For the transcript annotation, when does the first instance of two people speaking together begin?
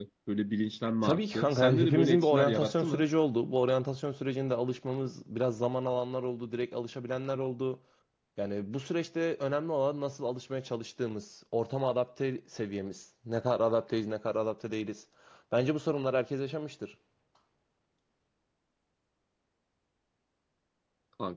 1.0 s

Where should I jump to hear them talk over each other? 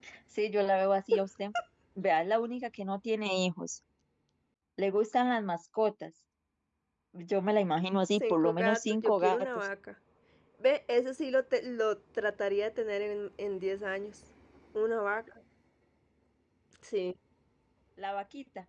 8.1 s

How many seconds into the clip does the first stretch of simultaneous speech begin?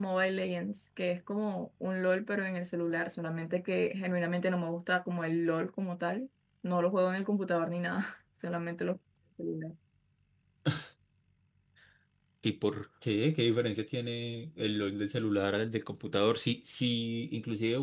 none

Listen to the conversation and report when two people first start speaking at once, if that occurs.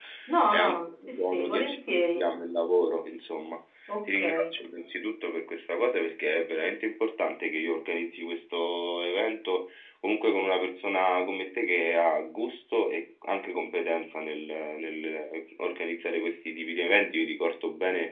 0.5 s

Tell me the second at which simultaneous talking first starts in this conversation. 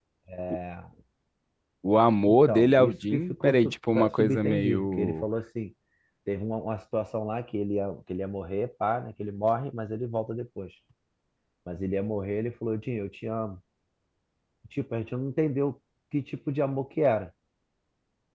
2.2 s

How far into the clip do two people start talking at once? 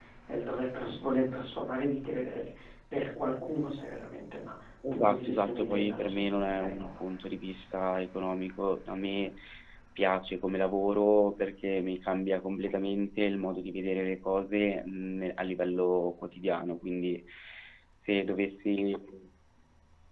4.8 s

